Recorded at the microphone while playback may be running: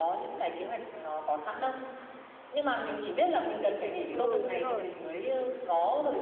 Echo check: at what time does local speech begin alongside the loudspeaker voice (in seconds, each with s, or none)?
4.1 s